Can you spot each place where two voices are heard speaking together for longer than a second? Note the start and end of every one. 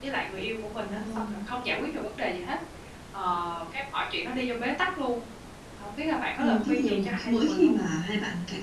6.4-7.7

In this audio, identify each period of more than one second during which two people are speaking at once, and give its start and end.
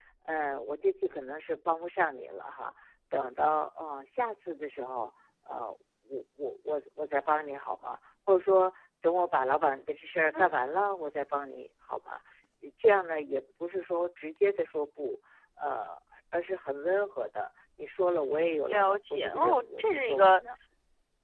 18.7-20.4

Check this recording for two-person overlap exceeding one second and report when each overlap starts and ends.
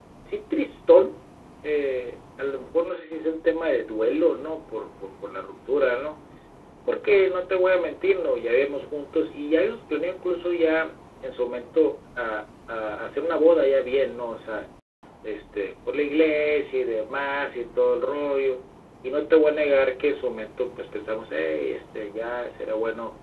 none

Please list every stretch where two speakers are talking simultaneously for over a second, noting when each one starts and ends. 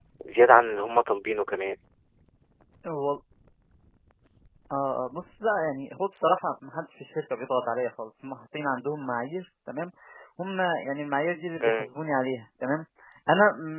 none

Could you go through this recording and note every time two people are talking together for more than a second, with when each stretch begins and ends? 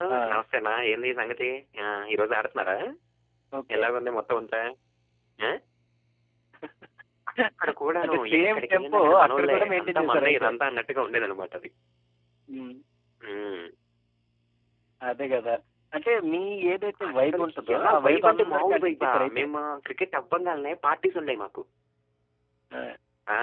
8.0-10.5, 17.1-19.4

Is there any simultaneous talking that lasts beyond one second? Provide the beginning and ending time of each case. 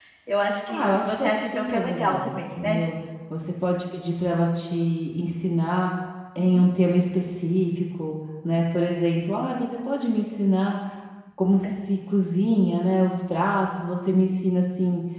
0.7-2.8

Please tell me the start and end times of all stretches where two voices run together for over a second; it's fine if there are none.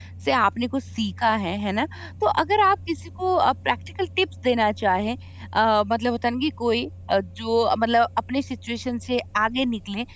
none

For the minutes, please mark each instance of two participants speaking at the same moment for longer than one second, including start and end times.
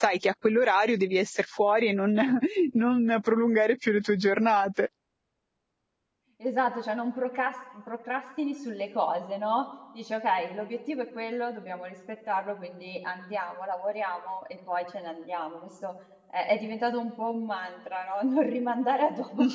none

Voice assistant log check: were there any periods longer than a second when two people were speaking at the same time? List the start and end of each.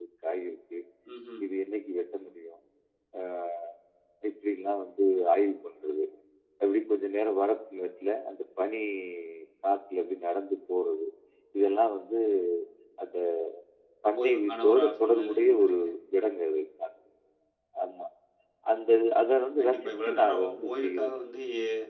14.2-15.8, 19.6-21.1

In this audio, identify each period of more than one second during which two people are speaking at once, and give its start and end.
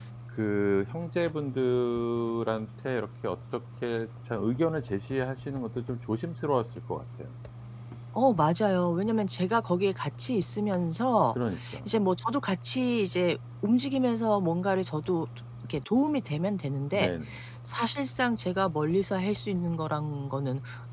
none

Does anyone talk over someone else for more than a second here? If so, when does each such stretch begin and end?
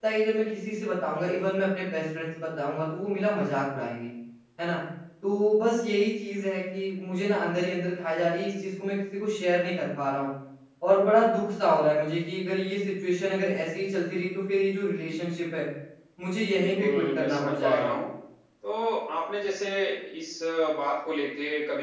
16.6-18.0

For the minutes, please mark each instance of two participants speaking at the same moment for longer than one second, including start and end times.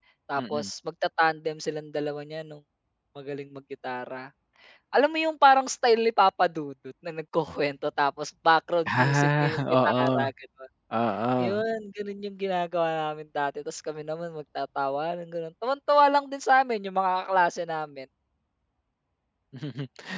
8.9-10.2

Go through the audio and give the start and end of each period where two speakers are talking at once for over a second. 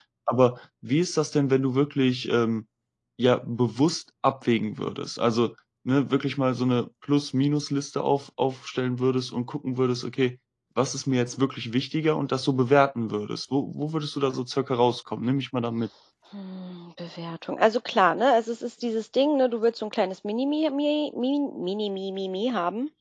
none

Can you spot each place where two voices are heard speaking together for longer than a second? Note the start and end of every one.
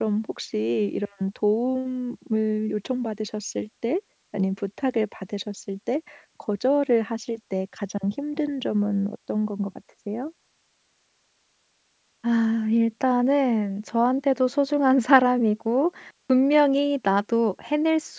none

